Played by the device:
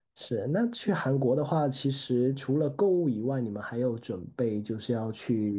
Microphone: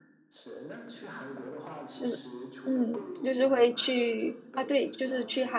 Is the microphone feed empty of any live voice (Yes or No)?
No